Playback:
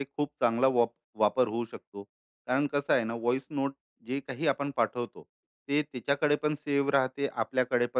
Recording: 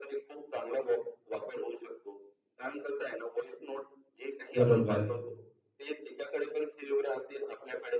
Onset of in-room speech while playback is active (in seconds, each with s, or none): 4.5 s